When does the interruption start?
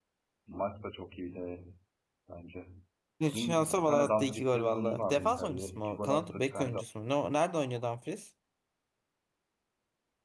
3 s

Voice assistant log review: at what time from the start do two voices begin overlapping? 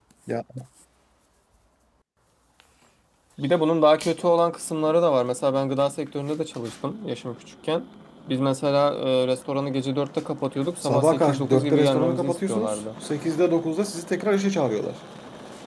11 s

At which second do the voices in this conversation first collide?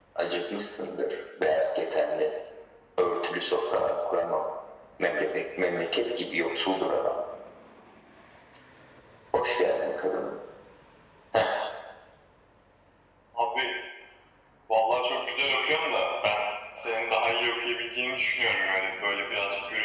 none

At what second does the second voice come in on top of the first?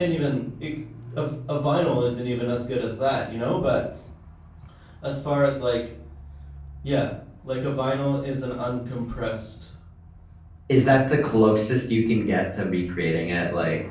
none

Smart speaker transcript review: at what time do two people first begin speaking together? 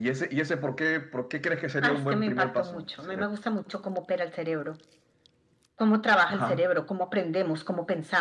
2 s

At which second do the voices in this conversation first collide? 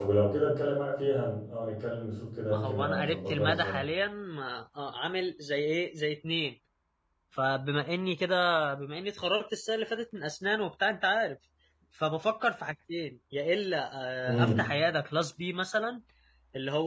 3 s

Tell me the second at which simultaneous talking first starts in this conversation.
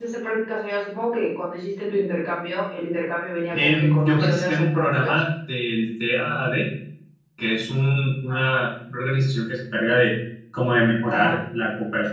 4 s

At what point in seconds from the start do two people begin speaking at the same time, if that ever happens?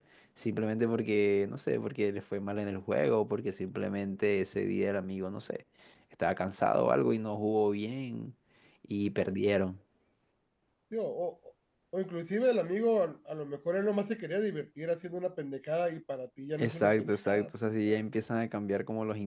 17 s

